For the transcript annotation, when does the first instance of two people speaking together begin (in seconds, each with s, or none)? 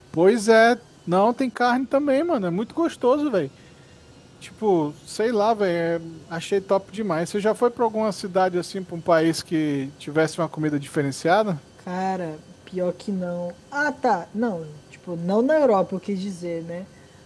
none